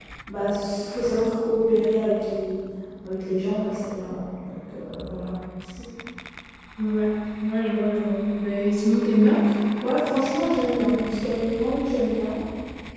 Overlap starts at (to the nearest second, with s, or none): none